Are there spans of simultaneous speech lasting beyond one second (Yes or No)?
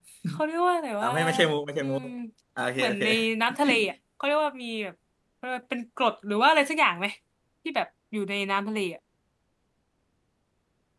No